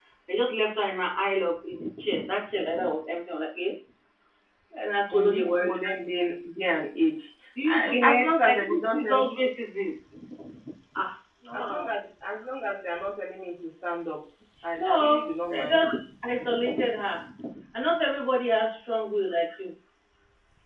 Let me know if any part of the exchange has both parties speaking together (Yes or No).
Yes